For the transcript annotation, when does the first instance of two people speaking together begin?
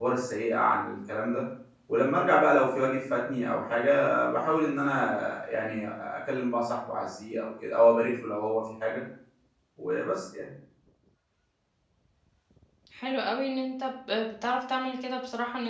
none

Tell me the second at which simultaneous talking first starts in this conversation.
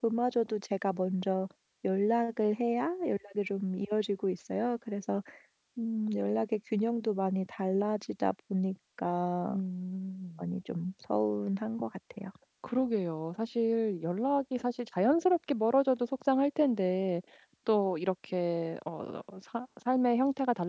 none

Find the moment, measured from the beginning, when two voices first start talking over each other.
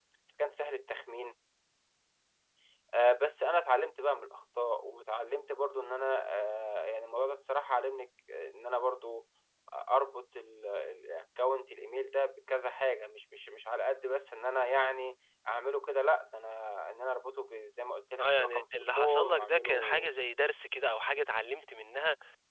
18.2 s

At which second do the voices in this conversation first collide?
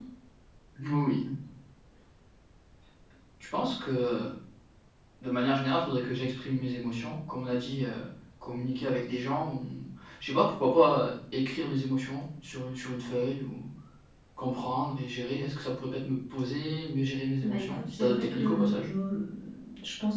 17.4 s

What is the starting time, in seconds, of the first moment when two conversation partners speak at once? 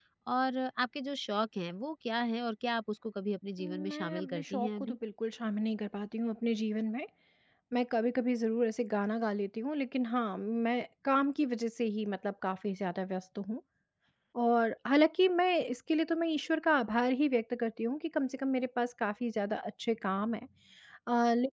3.6 s

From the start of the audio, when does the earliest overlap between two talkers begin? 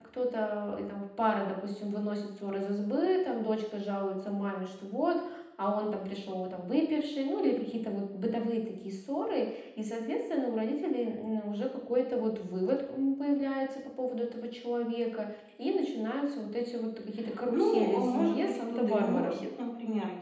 17.5 s

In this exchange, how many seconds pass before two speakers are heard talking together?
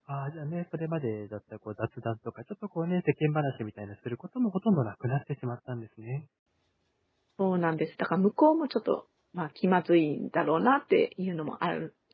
none

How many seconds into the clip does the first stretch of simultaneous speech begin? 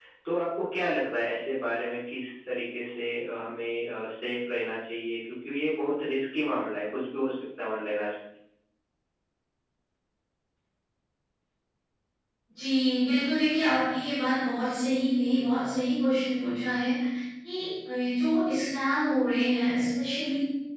none

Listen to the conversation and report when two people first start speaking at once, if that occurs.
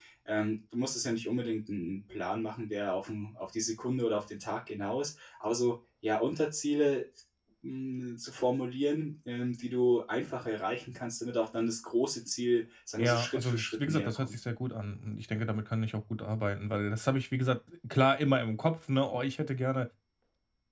13.0 s

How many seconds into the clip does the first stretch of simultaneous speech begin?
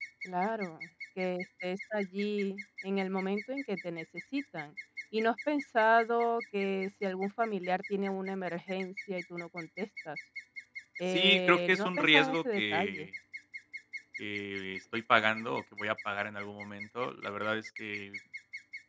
11.1 s

